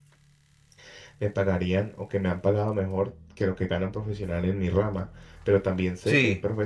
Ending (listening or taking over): listening